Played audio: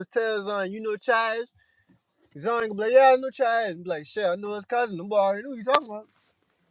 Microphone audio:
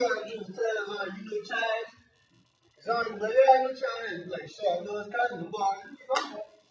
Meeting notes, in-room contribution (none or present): none